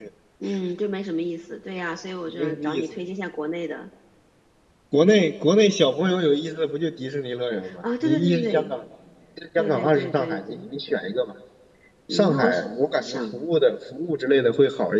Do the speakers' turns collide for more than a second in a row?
Yes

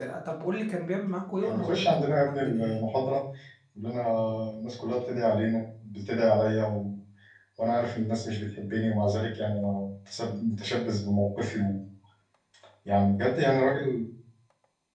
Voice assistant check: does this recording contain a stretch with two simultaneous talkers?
Yes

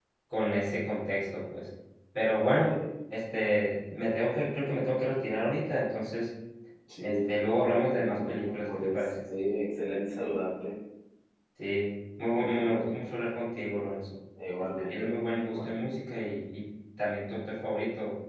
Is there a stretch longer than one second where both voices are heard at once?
Yes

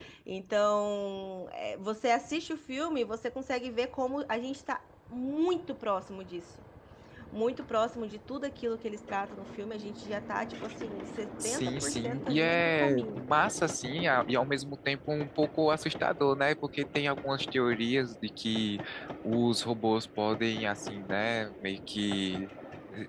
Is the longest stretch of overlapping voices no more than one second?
No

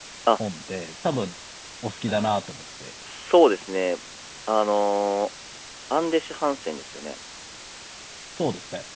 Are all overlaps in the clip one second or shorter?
Yes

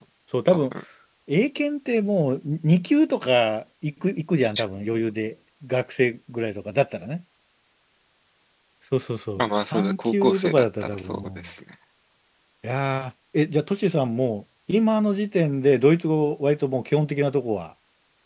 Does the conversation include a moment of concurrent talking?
Yes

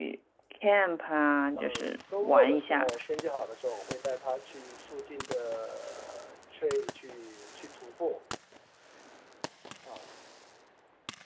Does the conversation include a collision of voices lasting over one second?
Yes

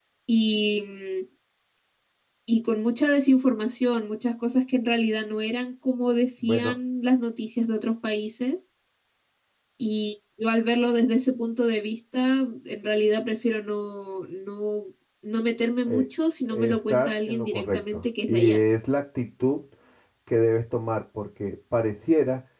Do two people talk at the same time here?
Yes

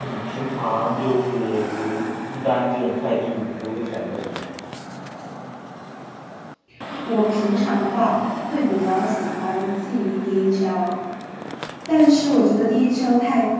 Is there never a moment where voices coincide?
Yes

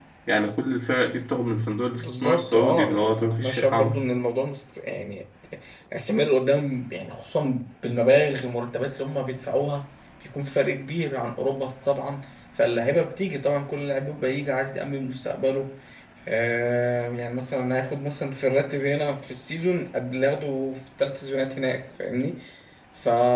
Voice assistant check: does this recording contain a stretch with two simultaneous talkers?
Yes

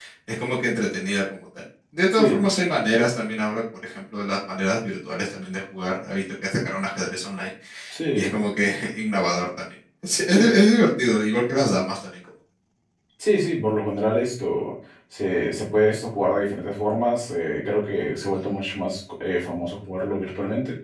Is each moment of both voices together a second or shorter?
Yes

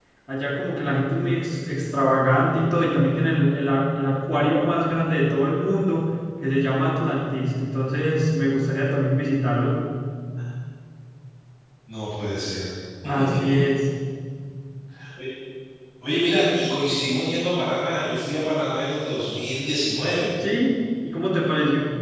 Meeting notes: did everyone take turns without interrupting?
Yes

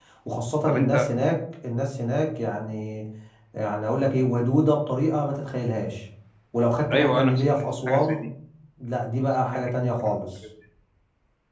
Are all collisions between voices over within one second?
No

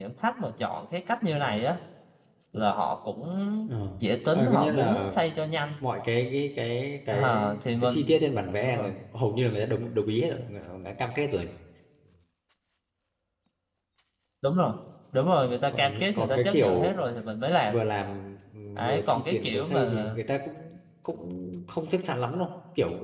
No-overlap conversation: No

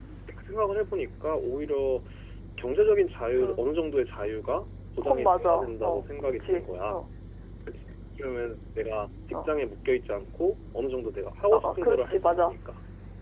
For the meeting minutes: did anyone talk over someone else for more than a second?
Yes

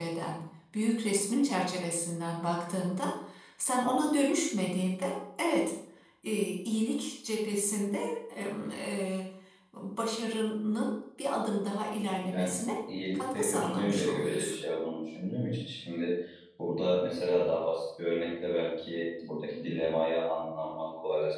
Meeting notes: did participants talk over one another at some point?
Yes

